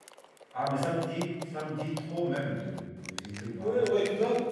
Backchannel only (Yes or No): No